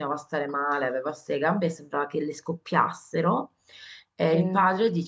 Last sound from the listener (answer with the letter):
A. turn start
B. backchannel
B